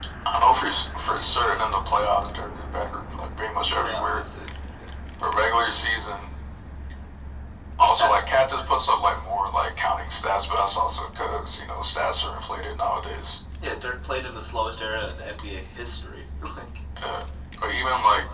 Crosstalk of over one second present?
No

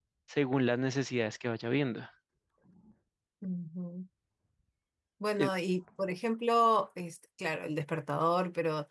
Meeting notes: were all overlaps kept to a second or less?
Yes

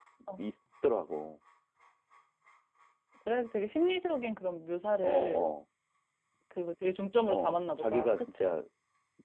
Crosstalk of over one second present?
Yes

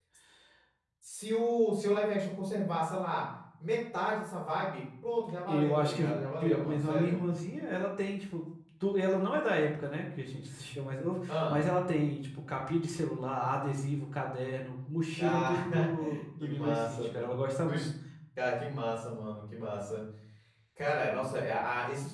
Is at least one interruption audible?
Yes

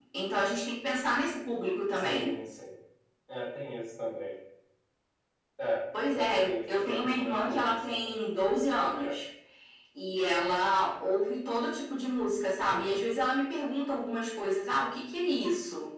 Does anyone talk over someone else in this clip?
Yes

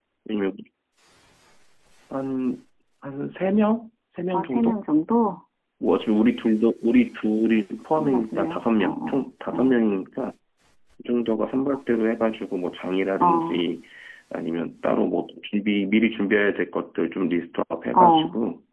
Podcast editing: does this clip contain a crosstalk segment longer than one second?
Yes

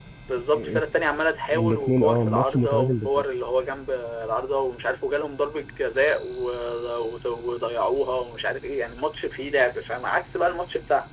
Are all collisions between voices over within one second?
No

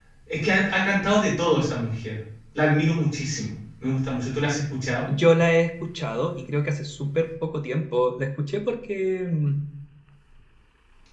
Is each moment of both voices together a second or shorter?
Yes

